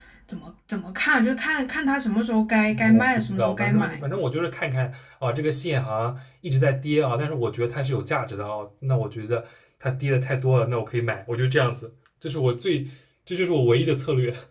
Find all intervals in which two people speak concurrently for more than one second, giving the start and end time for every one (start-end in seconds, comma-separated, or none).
2.8-4.0